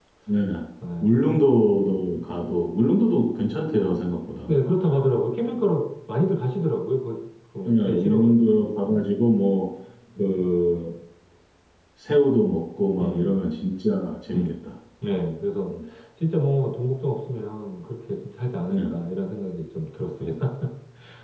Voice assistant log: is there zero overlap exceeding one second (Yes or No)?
No